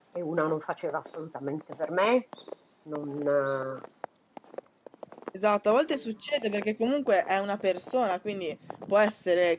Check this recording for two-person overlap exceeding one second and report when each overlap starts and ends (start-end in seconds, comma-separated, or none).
none